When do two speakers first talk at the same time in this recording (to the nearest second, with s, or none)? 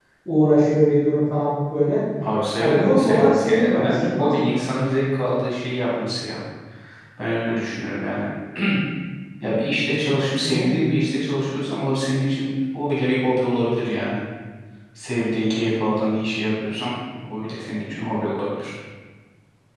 3 s